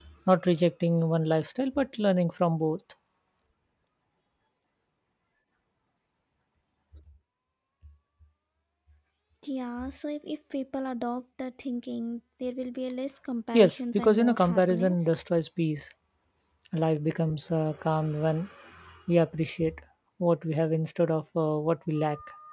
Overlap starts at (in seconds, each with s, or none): 13.5 s